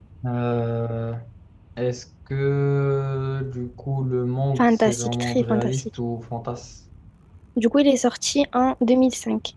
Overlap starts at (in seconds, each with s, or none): 4.6 s